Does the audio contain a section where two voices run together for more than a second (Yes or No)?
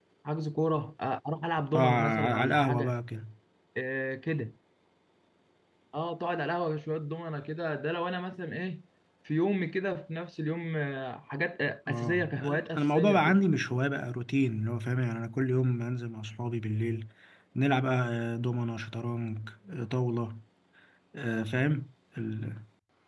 Yes